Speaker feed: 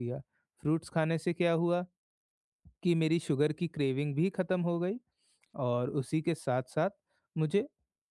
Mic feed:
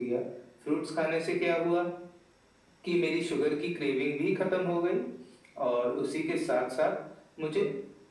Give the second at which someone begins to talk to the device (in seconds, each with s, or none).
none